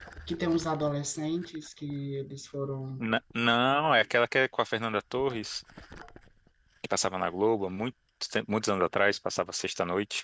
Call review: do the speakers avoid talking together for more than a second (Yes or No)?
Yes